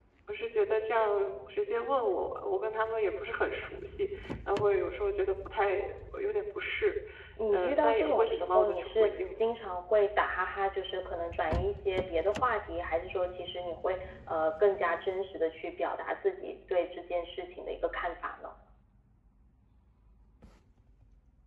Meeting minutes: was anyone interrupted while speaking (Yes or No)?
Yes